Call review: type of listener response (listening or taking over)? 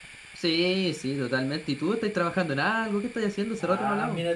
taking over